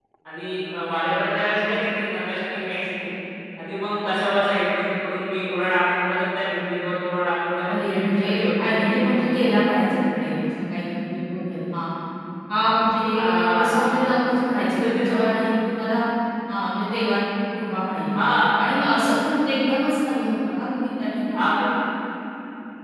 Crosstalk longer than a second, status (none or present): present